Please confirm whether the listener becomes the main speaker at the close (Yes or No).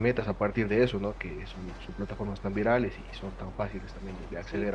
Yes